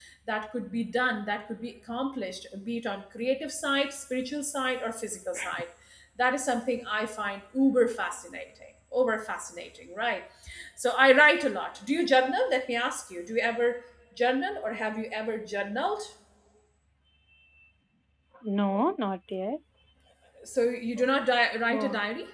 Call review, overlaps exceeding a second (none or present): none